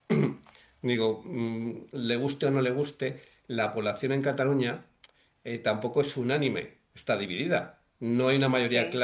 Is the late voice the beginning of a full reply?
No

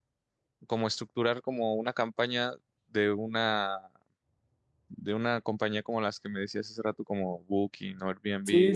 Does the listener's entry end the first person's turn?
Yes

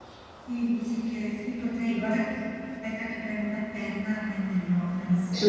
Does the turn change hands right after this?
Yes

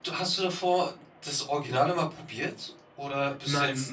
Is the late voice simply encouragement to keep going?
No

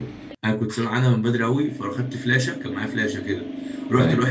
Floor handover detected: No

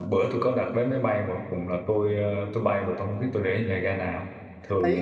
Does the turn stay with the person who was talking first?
No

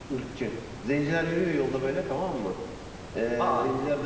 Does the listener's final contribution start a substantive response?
No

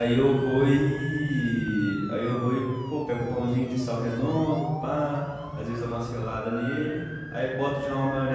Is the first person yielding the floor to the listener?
No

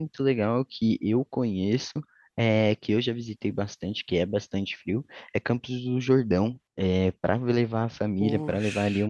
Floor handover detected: No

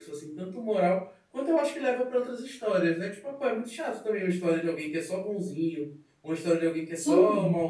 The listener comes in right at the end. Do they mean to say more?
No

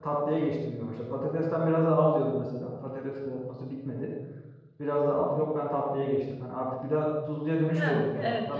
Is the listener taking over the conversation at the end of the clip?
Yes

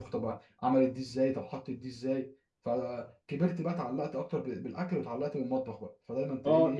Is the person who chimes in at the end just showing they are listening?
No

